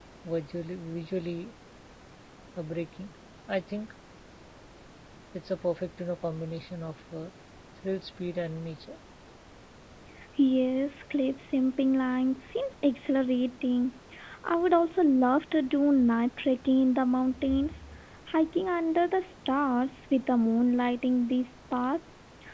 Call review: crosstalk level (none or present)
none